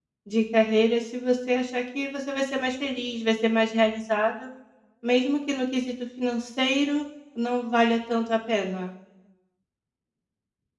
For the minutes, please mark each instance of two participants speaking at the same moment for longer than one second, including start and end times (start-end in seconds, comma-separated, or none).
none